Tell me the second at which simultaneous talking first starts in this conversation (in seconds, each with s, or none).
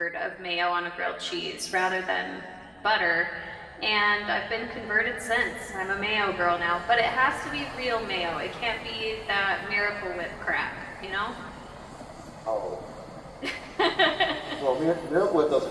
none